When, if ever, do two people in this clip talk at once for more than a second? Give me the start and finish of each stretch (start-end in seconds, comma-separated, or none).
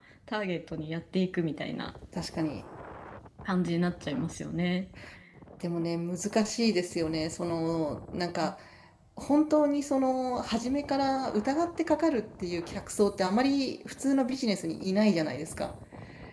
none